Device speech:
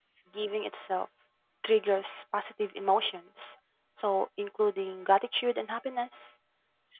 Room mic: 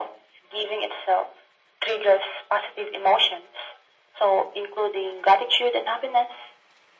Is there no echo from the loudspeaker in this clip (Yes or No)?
No